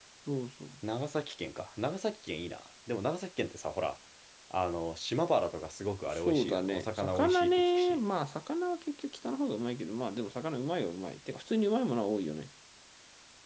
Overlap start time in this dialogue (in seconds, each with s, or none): 6.1 s